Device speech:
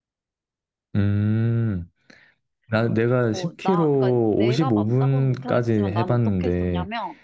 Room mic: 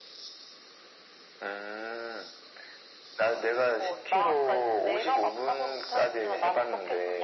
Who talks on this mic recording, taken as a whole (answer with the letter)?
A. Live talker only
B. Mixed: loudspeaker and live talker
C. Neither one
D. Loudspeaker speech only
D